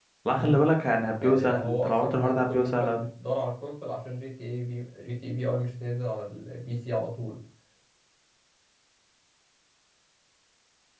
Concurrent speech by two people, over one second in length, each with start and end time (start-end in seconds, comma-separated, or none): 1.2-3.0